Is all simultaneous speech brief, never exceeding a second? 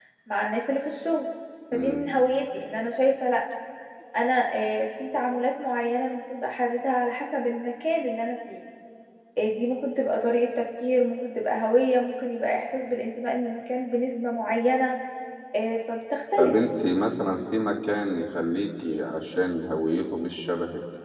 Yes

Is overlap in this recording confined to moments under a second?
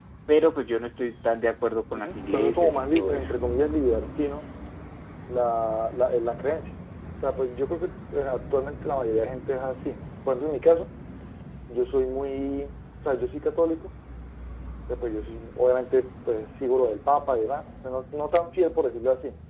No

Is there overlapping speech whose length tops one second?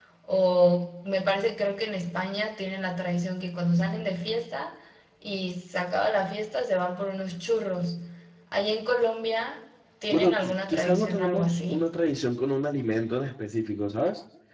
Yes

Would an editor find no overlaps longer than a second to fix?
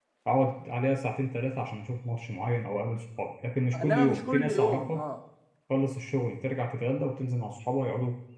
No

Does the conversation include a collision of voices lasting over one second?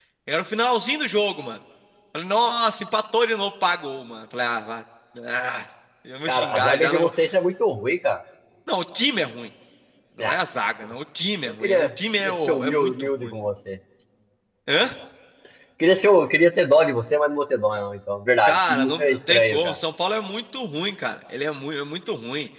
Yes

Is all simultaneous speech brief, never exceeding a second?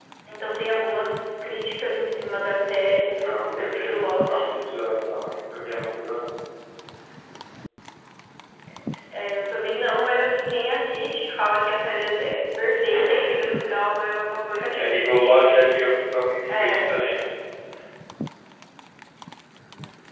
No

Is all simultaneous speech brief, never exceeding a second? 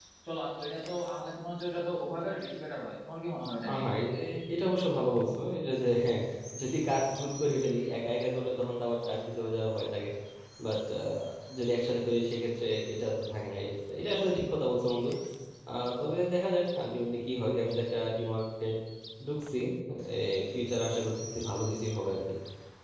Yes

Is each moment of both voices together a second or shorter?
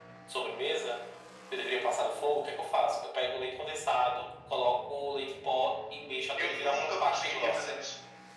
No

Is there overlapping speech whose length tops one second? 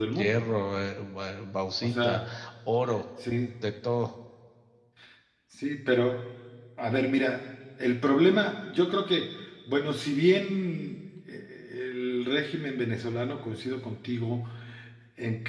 No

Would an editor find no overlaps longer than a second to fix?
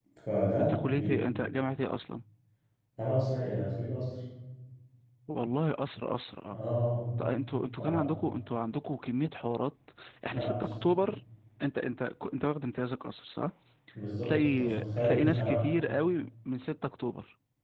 No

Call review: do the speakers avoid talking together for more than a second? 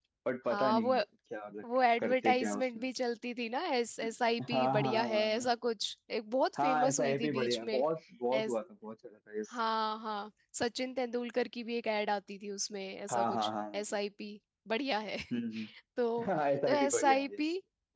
No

